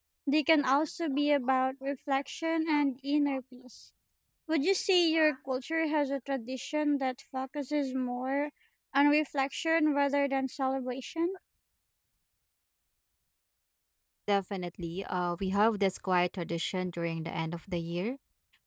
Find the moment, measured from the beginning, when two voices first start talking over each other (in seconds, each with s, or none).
none